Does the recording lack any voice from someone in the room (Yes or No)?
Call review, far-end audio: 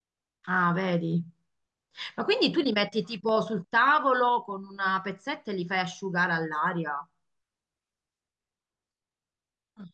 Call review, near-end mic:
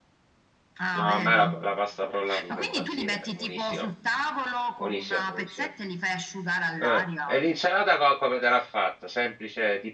No